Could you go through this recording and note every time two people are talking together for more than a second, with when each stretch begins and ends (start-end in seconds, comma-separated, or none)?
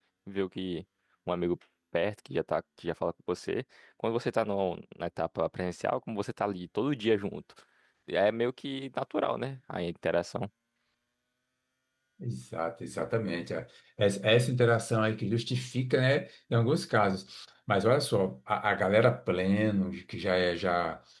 none